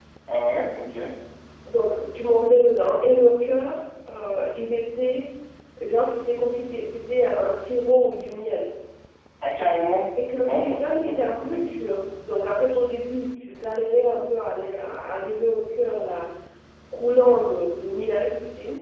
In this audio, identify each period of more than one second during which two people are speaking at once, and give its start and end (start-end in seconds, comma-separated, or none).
10.4-11.6